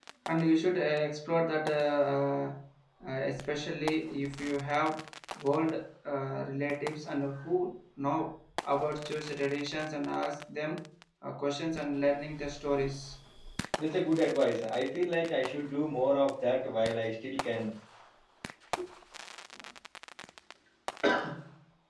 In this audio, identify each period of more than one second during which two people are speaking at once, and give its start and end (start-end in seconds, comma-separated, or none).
none